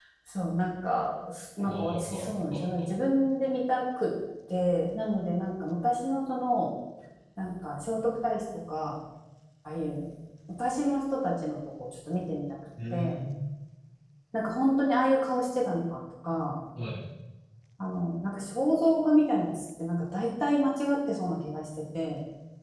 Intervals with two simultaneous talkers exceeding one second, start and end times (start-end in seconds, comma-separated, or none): 1.6-2.9